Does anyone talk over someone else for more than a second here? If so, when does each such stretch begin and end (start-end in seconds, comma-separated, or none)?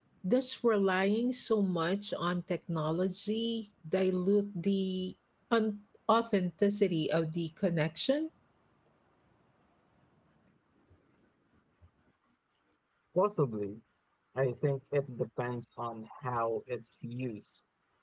none